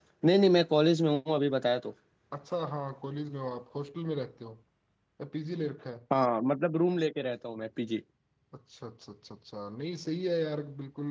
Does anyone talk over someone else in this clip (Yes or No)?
No